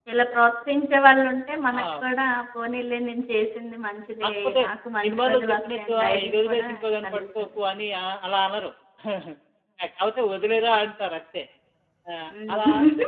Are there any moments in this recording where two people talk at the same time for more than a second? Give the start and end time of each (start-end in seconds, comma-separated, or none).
5.0-6.7